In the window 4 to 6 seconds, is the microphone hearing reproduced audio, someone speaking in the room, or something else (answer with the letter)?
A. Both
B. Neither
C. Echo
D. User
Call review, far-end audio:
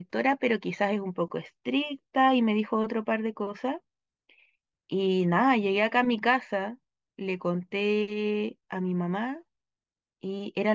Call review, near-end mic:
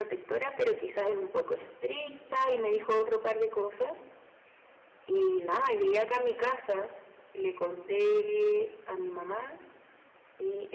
C